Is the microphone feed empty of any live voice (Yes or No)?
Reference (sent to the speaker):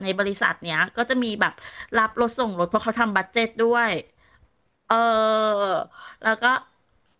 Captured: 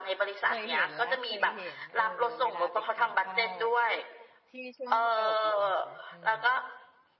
No